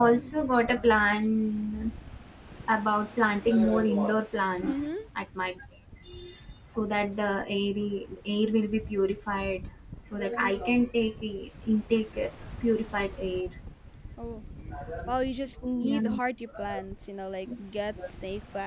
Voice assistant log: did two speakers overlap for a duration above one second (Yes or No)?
No